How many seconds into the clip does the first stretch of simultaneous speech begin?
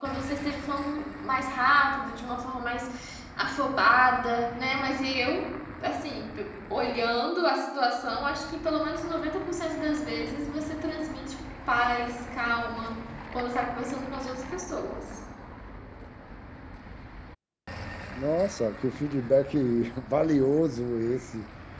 none

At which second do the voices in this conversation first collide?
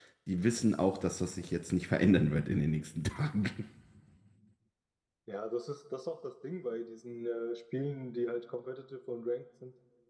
none

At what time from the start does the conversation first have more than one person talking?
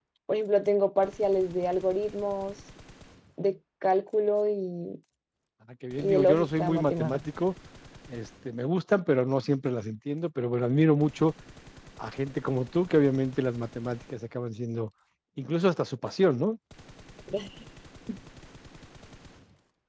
6 s

